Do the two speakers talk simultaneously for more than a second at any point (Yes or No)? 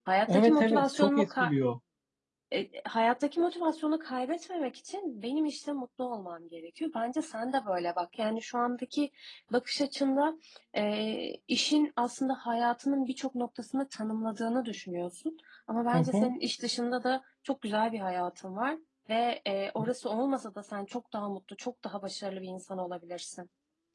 Yes